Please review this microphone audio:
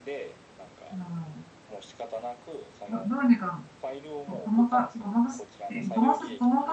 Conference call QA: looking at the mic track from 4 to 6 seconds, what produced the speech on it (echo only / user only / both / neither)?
both